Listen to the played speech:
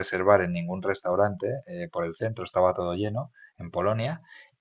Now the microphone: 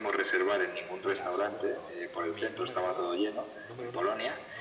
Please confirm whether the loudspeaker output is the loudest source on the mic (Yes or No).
Yes